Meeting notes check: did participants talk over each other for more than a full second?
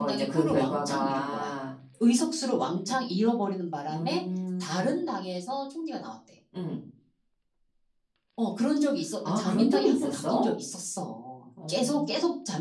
Yes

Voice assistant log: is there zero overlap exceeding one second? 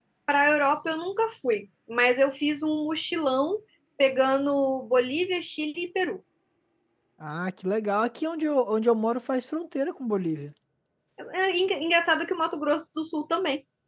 Yes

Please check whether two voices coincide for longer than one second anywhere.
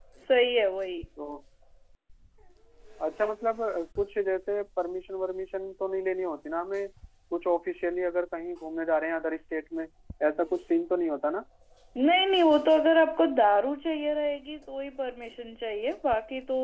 No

